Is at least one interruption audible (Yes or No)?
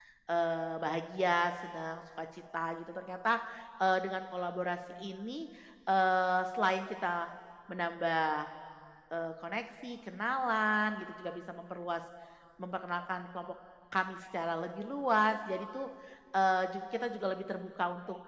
No